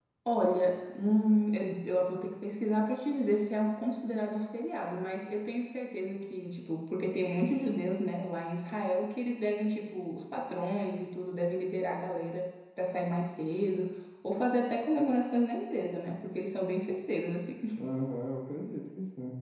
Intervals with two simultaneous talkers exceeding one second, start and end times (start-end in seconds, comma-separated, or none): none